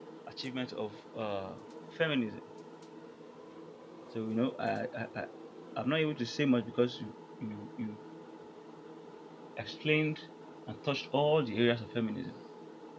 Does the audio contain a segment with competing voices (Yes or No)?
No